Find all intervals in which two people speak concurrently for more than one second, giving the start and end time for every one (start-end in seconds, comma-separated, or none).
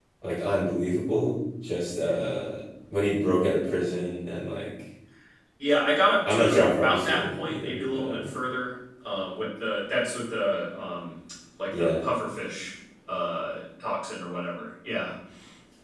6.3-8.3